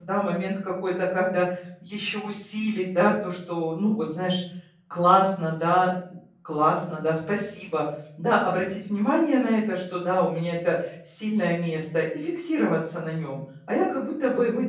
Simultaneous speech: No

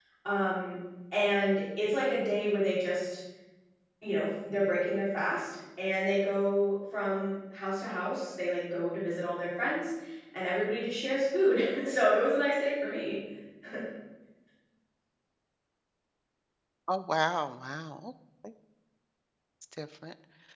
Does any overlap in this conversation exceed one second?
No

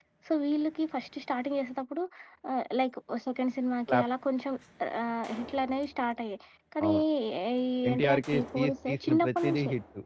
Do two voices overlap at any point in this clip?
Yes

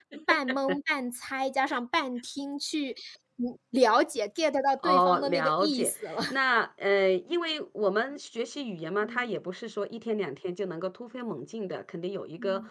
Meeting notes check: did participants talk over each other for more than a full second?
Yes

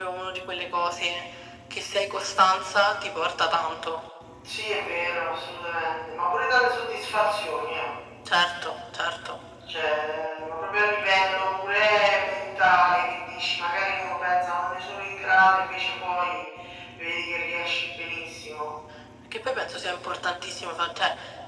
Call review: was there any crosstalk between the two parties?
No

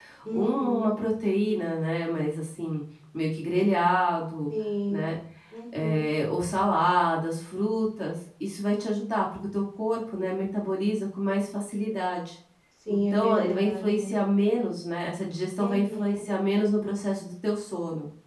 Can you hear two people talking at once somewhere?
Yes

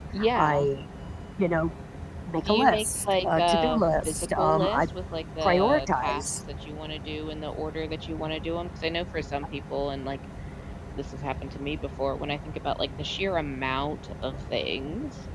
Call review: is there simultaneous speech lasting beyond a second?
Yes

